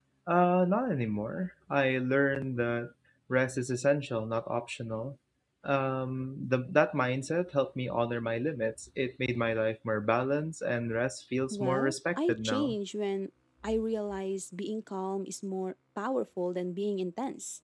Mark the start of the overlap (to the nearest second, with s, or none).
12 s